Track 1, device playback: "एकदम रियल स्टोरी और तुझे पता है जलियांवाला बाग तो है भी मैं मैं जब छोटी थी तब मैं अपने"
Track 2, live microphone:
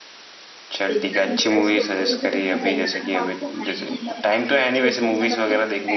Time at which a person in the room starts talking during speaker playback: 0.7 s

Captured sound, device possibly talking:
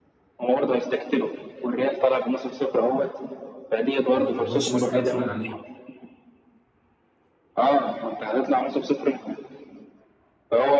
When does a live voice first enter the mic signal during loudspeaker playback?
4.1 s

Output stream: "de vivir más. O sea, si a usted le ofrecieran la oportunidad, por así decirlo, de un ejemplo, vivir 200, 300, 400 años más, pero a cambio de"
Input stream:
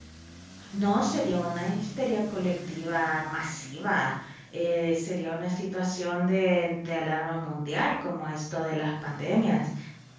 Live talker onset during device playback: 0.7 s

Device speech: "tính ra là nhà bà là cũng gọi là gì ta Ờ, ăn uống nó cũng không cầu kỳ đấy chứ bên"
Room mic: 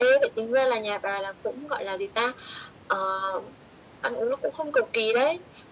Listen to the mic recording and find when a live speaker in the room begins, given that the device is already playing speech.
none

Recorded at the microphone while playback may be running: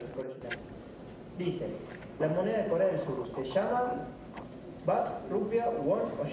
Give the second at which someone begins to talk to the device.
none

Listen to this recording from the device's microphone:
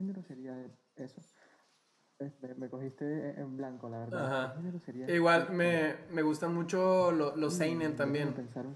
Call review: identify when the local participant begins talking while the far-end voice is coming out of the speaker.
4.1 s

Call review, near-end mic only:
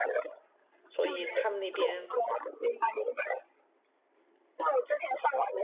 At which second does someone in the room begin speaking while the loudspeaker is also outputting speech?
0.9 s

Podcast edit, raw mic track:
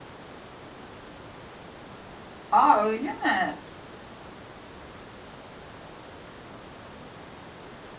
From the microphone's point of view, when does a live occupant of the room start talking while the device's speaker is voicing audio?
2.5 s

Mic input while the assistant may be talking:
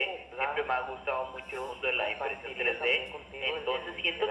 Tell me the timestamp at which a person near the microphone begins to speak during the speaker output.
none

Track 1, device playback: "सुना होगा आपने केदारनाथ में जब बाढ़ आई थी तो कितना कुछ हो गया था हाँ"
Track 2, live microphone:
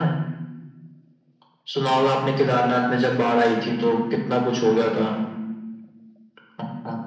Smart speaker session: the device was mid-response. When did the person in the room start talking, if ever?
none

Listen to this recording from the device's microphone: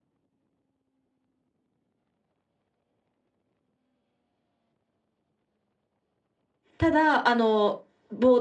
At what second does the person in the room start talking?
6.8 s

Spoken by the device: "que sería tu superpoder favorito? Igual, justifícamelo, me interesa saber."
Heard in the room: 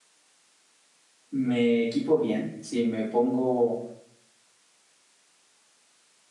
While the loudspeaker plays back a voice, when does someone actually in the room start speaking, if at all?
1.3 s

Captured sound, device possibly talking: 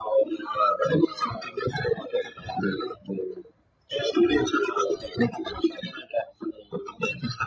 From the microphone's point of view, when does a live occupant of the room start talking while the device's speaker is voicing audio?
none

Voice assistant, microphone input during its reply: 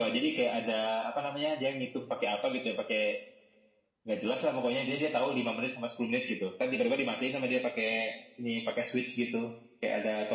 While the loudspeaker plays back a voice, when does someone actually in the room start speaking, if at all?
none

